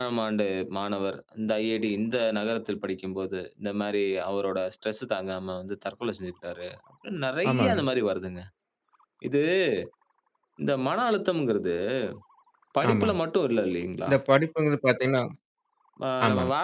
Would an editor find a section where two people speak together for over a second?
No

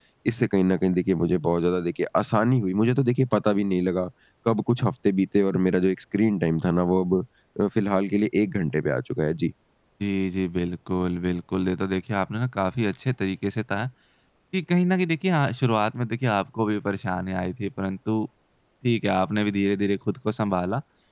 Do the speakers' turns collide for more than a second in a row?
No

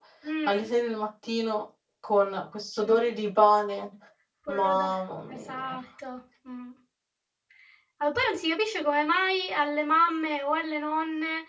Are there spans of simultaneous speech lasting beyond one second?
No

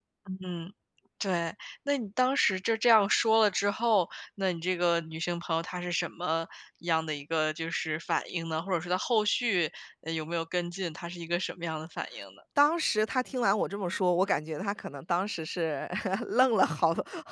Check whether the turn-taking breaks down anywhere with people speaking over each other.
No

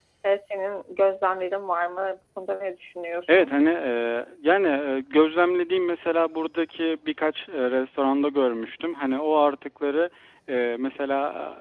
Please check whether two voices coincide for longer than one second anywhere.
No

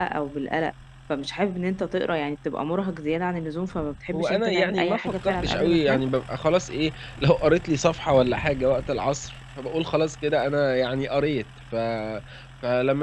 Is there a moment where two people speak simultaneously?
Yes, from 4.1 s

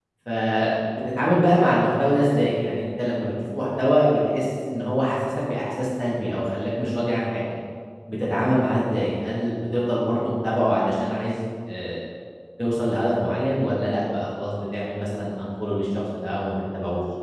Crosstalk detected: No

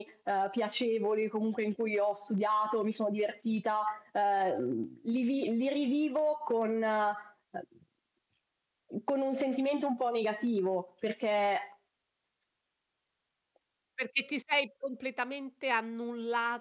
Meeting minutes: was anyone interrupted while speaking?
No

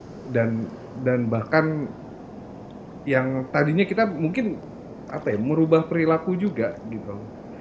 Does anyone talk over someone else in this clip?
No

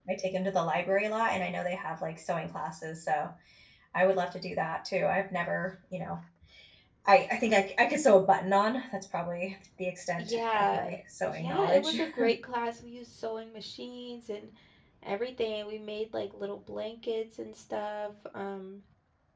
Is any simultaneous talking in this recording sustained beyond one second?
Yes, from 10.1 s

